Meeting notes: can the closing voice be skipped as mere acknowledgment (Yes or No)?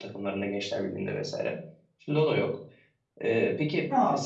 No